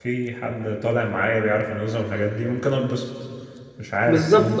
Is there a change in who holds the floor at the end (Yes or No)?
Yes